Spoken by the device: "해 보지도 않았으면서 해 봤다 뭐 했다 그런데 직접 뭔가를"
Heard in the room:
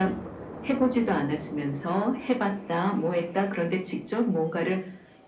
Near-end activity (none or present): none